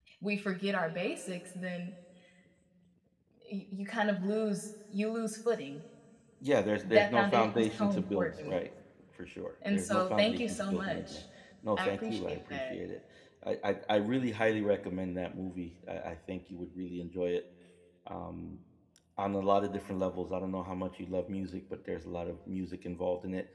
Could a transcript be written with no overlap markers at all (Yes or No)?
No